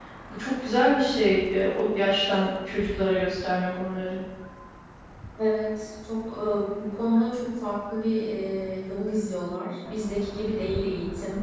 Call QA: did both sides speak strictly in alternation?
Yes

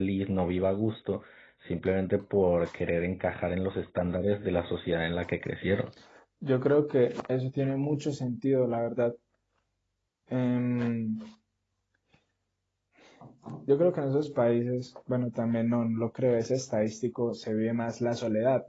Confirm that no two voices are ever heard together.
Yes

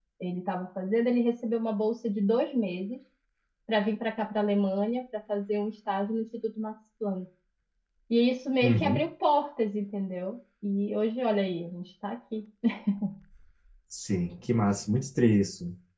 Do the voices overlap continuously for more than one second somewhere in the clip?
No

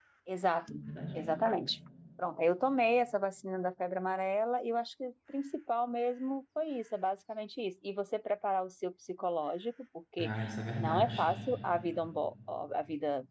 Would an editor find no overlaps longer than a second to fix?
Yes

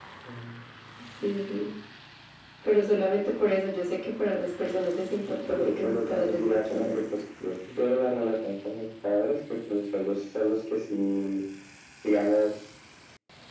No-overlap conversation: No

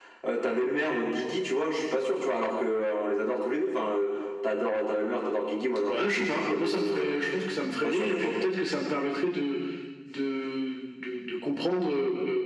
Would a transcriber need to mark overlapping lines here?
Yes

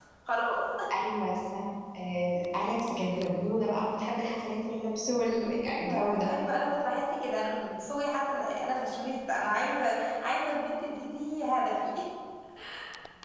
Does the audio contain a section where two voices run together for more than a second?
No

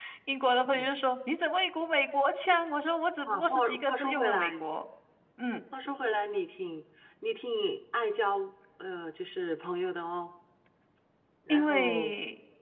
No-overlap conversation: No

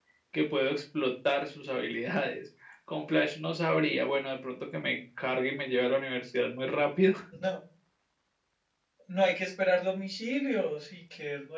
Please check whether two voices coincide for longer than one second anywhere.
No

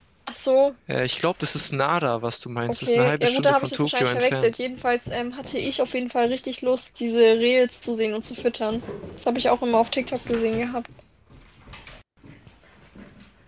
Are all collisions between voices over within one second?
No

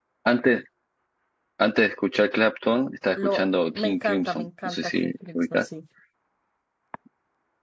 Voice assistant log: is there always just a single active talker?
No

